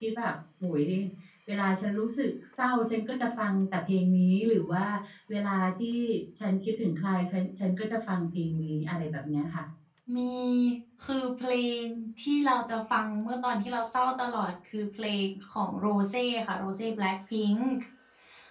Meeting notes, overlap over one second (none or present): none